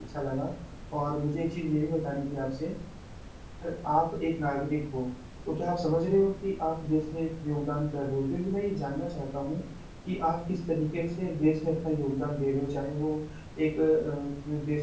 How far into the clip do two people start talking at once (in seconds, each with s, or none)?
none